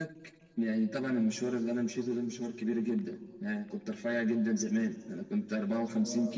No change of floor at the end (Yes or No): Yes